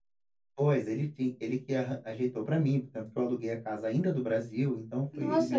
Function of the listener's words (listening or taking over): taking over